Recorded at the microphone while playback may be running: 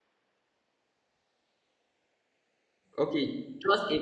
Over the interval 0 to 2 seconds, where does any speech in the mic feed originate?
neither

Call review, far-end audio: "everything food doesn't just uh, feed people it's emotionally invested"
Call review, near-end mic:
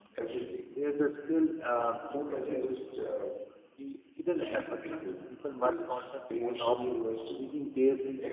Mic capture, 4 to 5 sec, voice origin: both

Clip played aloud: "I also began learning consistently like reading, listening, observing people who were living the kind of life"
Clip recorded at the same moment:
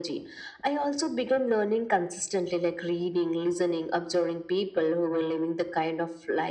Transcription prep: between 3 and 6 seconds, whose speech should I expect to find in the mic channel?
echo only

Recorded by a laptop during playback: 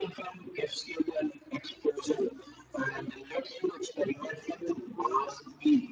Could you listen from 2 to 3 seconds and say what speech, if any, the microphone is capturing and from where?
echo only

